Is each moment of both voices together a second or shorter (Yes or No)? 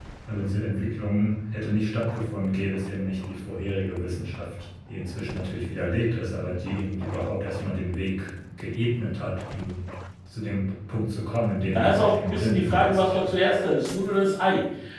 No